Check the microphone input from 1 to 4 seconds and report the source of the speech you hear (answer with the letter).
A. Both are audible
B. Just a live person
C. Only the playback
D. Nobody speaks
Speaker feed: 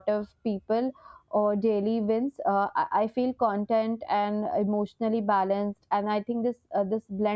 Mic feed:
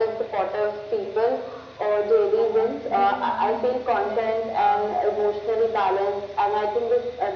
A